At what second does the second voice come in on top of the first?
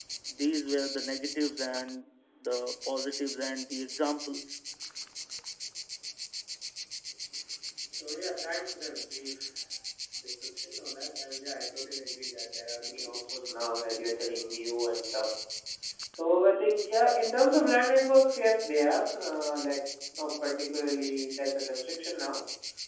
none

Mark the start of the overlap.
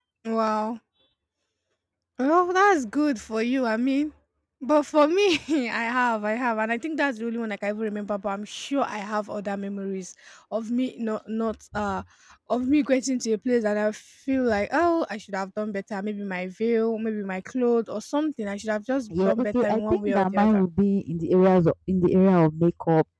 19.1 s

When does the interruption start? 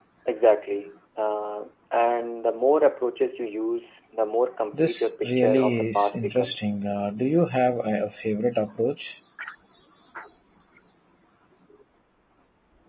4.7 s

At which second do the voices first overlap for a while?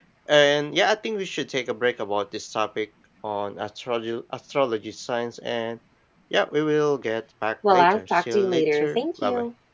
7.6 s

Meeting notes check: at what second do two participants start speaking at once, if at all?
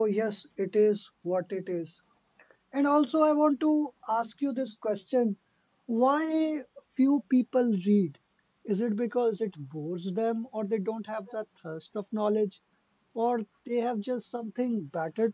none

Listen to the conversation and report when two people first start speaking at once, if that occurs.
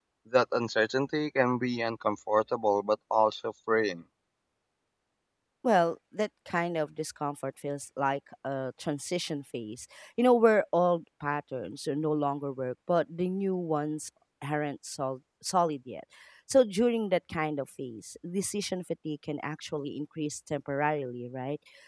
none

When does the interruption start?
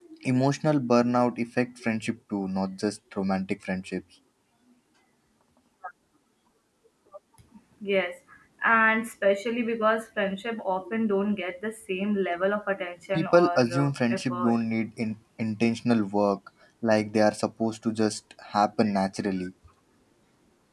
13.2 s

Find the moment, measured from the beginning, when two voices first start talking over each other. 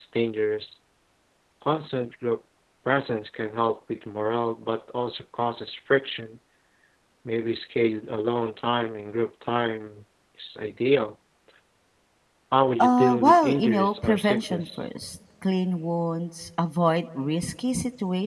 12.8 s

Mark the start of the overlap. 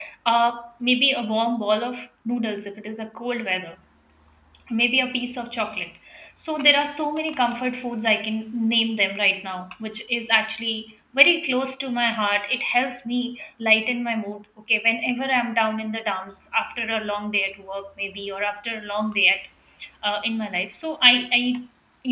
none

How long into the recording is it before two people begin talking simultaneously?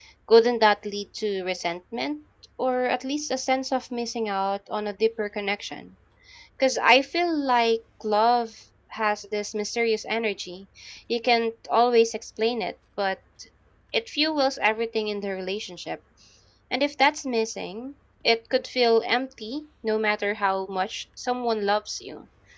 none

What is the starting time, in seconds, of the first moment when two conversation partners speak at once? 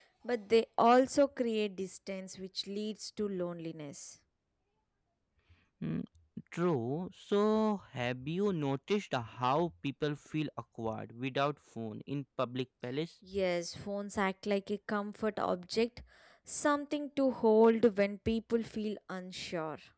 none

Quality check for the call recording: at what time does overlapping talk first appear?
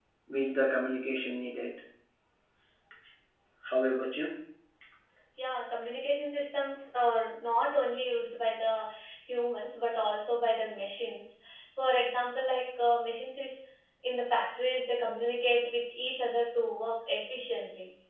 none

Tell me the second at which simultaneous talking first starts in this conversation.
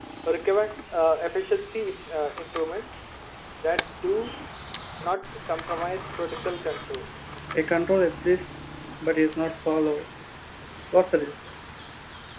none

